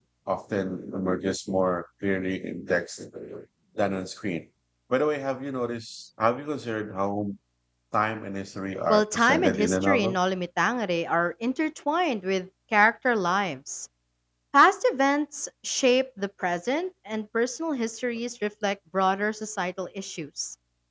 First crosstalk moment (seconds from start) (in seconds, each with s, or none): 8.9 s